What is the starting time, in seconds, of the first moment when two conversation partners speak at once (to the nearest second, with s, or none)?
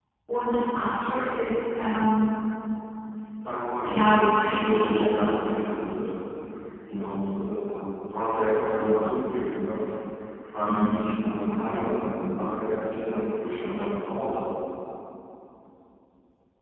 4 s